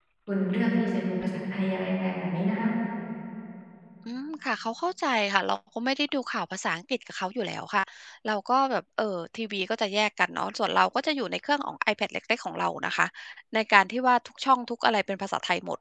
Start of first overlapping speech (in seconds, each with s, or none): none